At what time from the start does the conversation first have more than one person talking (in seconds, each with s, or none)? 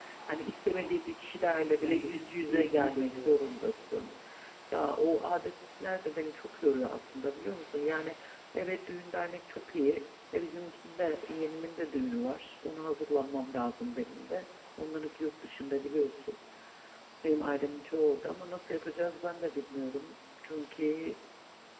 1.4 s